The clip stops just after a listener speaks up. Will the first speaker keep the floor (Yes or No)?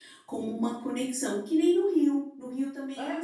No